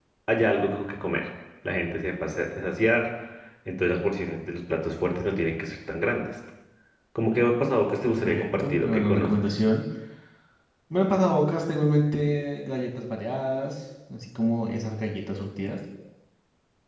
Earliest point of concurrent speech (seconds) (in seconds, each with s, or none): 8.1 s